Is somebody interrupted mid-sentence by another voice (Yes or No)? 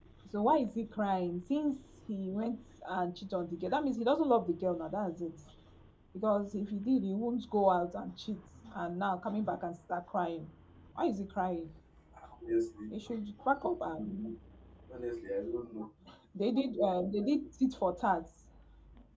No